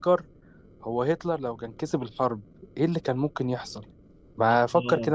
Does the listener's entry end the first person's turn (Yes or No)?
Yes